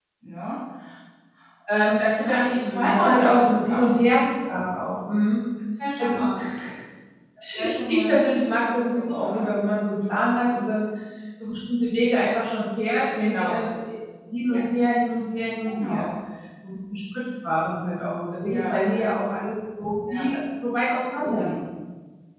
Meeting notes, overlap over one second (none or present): present